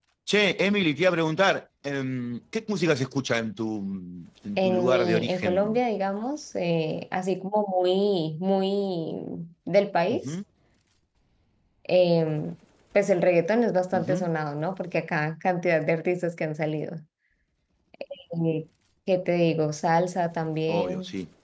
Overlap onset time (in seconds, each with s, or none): 4.6 s